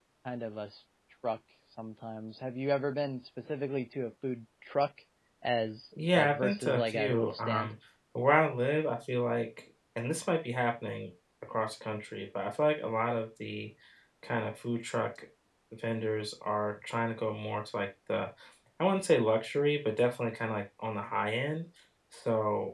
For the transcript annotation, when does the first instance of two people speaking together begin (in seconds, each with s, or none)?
6.1 s